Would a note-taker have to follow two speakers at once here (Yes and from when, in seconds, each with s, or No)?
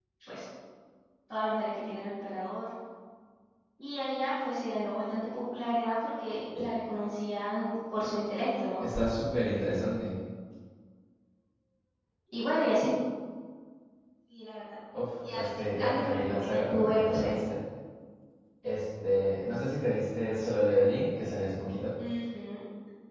Yes, from 15.3 s